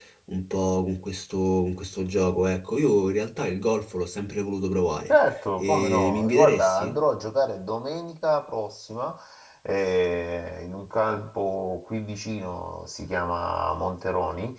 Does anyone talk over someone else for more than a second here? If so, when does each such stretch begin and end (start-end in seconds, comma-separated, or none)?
5.6-7.0